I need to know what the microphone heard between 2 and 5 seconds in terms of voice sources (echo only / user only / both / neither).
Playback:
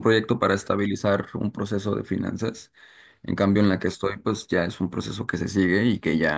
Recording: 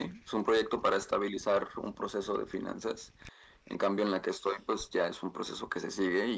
echo only